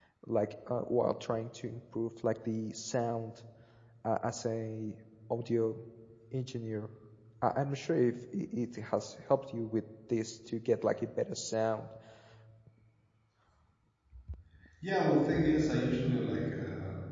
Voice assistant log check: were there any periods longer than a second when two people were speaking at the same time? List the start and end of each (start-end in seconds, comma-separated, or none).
none